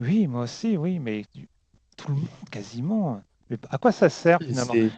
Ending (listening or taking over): listening